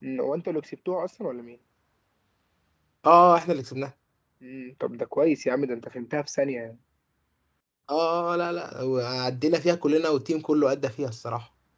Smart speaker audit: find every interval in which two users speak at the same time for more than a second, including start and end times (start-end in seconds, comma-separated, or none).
none